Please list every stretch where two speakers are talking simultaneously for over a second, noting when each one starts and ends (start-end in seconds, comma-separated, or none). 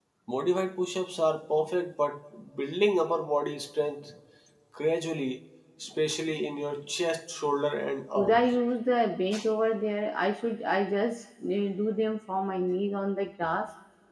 none